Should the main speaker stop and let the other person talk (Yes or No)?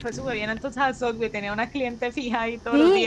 Yes